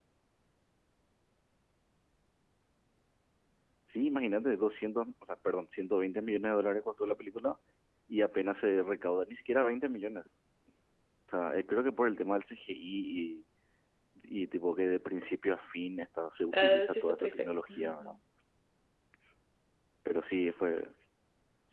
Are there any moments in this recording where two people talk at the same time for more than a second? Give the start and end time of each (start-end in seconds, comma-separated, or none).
16.5-18.2